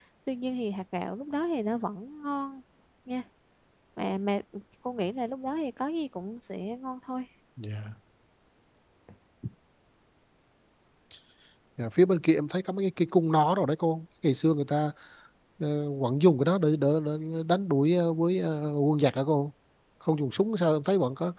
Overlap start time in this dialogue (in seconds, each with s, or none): none